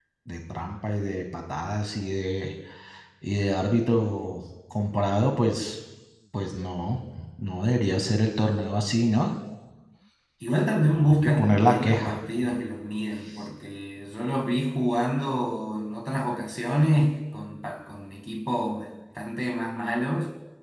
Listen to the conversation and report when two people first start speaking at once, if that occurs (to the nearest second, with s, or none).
11 s